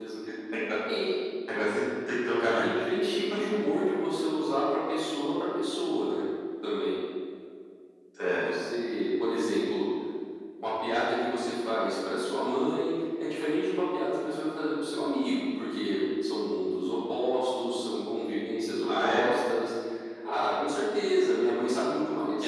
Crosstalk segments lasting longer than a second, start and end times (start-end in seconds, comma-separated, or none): none